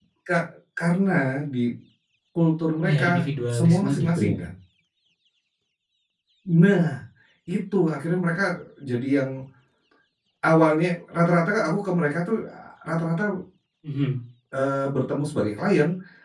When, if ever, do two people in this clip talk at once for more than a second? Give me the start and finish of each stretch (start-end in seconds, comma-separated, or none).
2.8-4.3